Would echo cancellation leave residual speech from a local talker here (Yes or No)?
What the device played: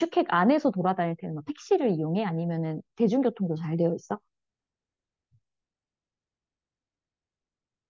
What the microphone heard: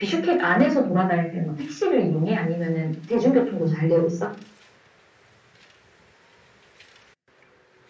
No